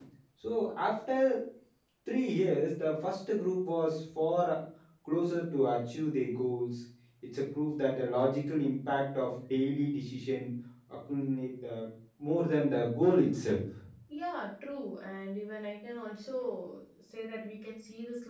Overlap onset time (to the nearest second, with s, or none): none